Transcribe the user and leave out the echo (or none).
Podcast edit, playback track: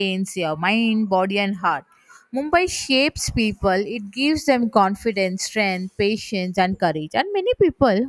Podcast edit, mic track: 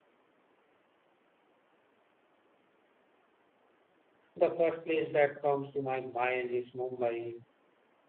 the first place that comes to my mind is Mumbai.